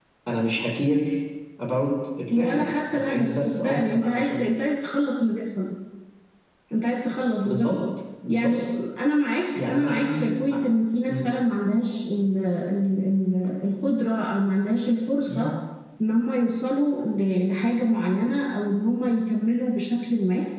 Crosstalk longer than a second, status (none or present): present